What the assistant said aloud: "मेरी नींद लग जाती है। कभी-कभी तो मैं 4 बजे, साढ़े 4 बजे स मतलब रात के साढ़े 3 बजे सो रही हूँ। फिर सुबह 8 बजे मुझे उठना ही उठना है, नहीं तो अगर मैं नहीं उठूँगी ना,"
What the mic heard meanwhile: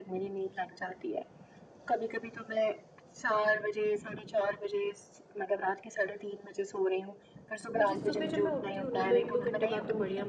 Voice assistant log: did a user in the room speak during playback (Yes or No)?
Yes